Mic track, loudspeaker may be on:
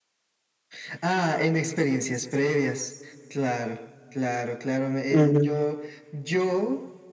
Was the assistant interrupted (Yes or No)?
Yes